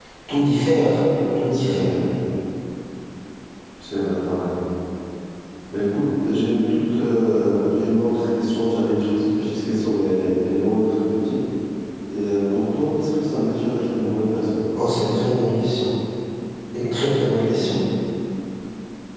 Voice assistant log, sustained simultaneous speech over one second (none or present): none